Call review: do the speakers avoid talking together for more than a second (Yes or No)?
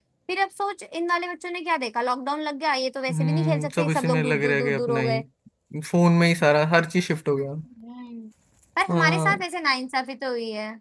No